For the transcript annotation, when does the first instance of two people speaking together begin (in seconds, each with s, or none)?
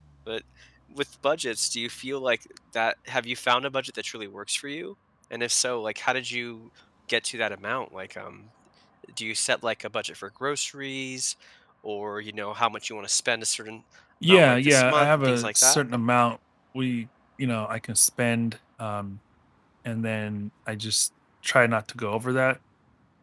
14.2 s